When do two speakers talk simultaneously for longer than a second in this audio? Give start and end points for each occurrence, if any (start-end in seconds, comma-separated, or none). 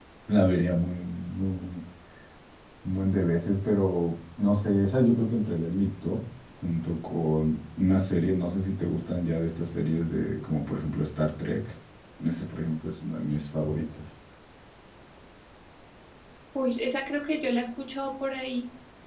none